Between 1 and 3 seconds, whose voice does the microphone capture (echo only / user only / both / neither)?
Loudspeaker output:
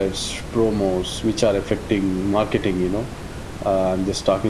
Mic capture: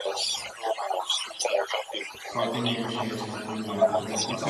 both